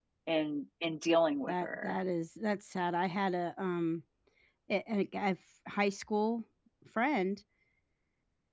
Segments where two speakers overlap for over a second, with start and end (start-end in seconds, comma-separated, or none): none